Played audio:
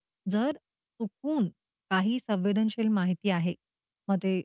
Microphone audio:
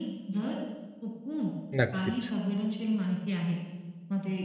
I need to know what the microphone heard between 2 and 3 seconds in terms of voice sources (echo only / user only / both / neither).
both